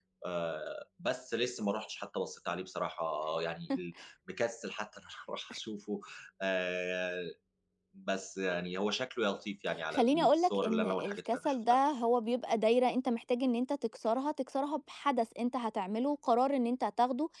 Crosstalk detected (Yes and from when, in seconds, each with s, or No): Yes, from 9.9 s